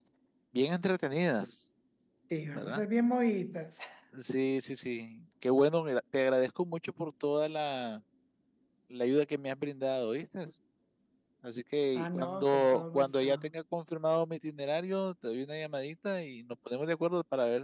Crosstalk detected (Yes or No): Yes